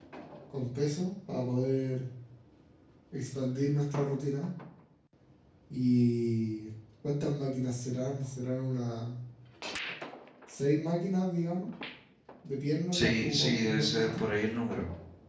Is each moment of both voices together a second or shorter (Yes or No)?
No